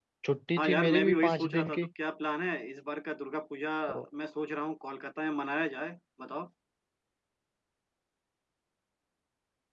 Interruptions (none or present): present